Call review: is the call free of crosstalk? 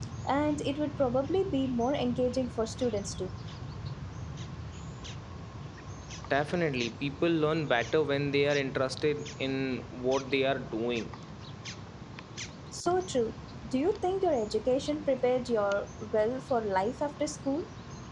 Yes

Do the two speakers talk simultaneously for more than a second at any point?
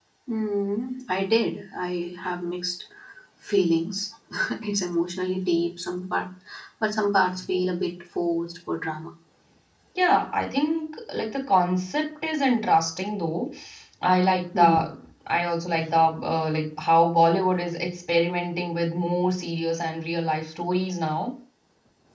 No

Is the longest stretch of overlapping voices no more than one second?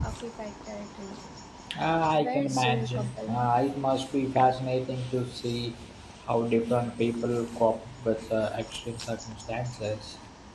No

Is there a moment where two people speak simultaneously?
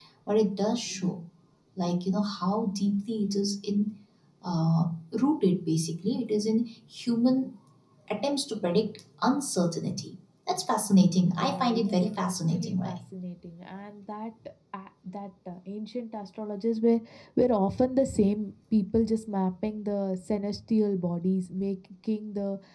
Yes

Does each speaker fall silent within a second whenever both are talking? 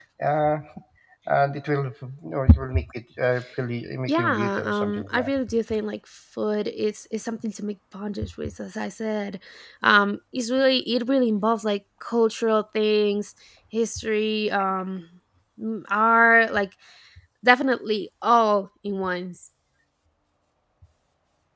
No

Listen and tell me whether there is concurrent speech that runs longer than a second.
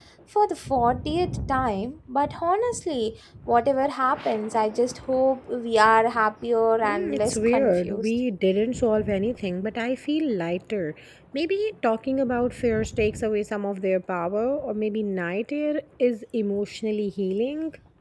Yes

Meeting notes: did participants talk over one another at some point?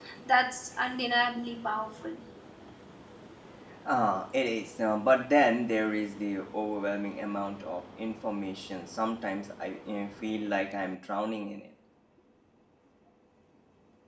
No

